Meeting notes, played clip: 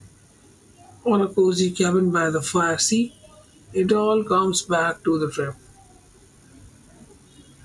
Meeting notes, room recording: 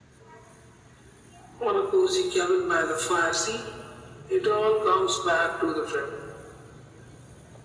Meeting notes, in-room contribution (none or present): none